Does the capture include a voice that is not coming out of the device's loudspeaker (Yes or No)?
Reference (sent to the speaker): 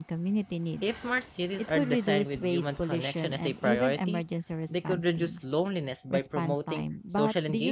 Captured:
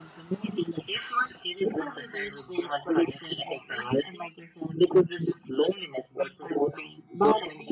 No